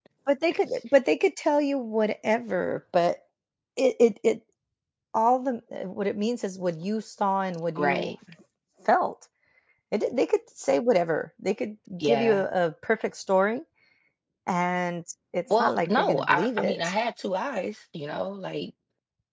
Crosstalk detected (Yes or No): Yes